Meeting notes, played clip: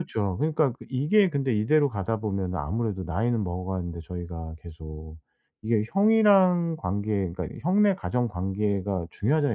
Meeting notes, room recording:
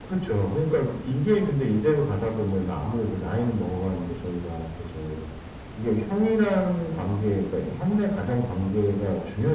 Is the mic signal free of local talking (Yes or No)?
Yes